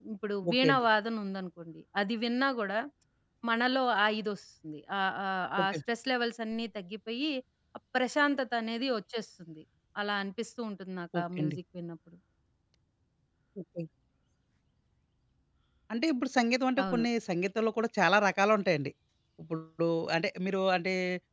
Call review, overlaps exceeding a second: none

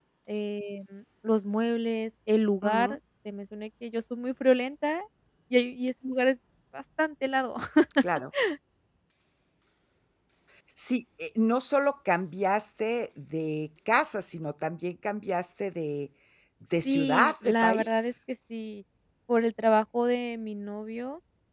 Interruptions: present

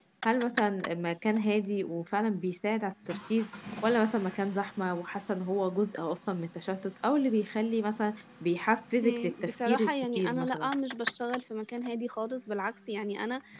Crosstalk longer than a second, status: present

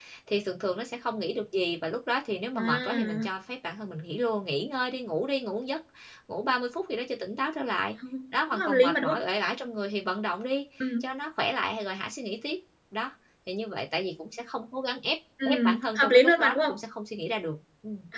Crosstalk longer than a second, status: present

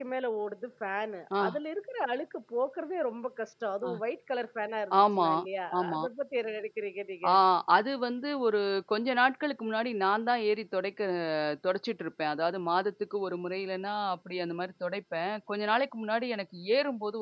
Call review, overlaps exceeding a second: none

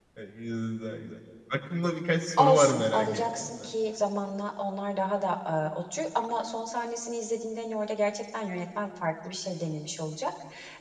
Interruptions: present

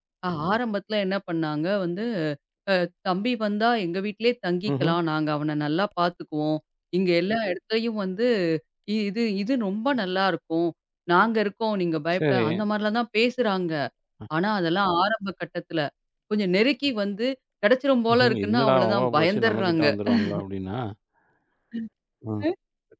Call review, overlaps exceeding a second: present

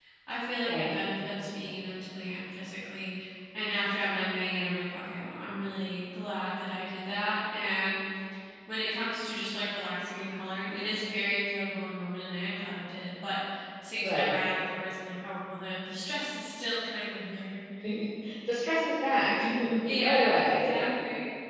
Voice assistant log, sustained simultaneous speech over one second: present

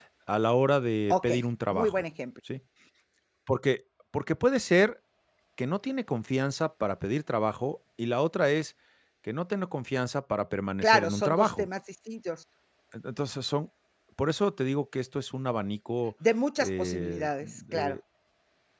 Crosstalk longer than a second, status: present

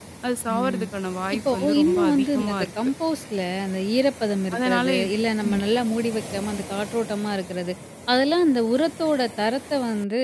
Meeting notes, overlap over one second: present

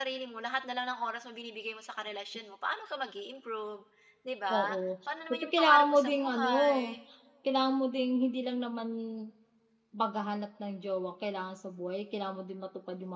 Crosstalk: present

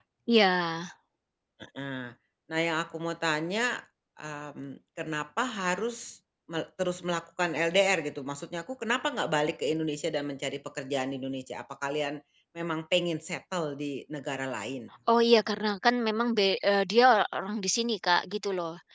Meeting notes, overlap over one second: none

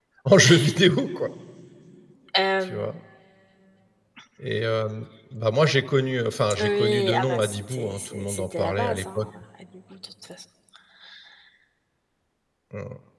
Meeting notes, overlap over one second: present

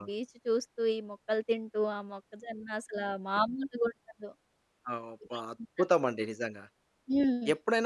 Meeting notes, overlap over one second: none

